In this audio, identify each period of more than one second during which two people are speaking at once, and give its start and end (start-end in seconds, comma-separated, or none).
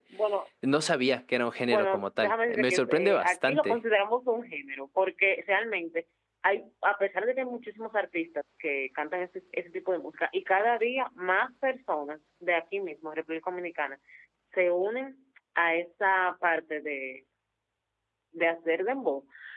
1.7-3.8